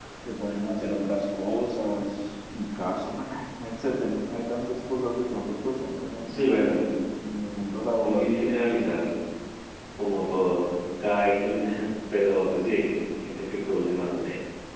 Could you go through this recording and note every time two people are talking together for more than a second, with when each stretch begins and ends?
none

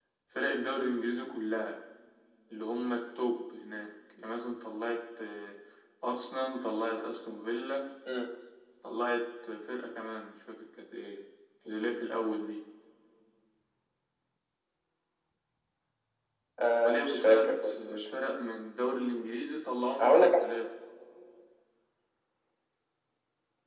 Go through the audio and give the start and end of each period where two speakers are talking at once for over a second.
16.7-18.1

